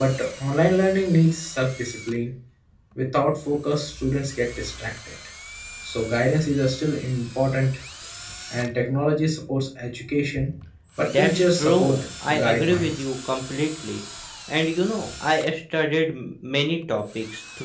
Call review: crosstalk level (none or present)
present